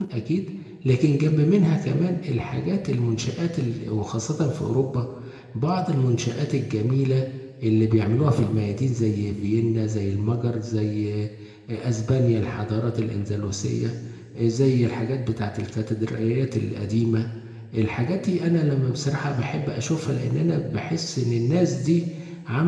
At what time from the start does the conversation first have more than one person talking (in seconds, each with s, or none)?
none